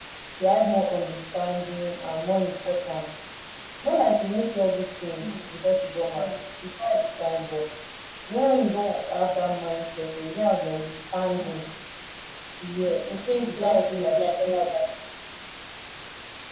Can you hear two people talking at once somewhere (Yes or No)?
Yes